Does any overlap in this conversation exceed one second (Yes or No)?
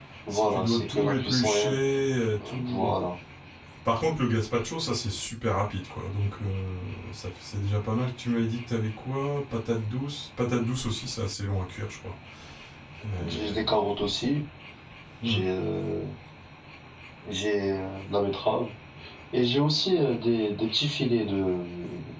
Yes